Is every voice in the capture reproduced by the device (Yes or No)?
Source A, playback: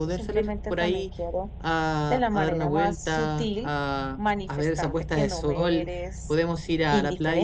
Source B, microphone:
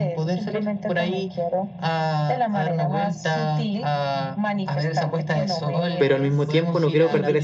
No